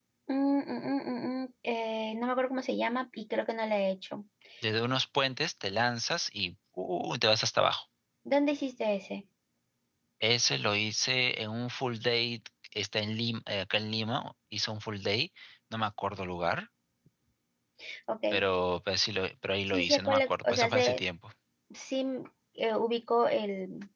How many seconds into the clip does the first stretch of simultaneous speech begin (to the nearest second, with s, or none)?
20 s